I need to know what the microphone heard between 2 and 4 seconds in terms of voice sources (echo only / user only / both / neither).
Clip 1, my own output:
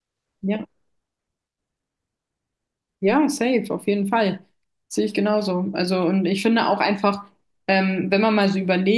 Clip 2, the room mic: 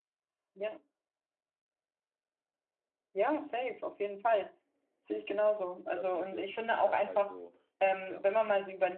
echo only